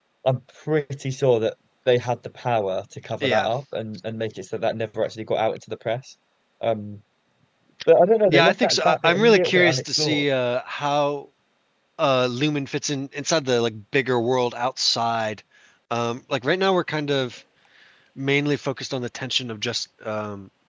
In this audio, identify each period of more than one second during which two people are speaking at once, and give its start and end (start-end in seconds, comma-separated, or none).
8.3-10.2